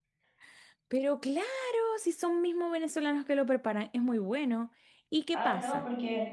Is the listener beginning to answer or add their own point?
Yes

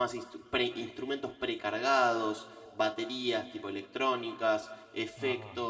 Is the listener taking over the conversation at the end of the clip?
No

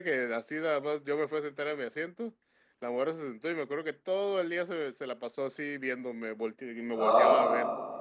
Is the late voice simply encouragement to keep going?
Yes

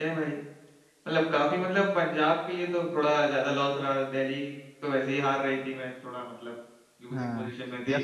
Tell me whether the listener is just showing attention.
No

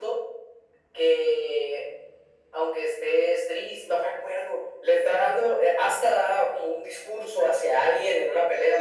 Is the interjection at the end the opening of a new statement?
Yes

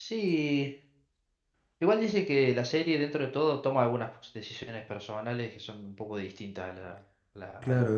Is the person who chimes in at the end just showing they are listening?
No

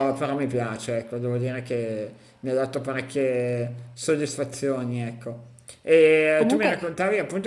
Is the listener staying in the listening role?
Yes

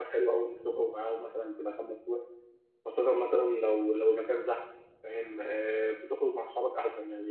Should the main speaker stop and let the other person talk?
No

